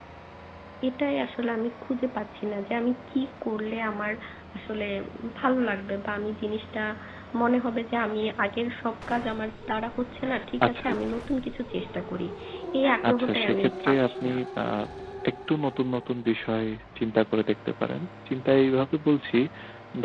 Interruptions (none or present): present